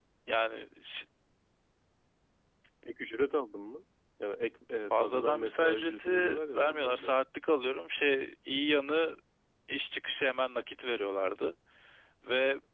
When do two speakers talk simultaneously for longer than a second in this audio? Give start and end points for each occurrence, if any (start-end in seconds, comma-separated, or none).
4.9-7.1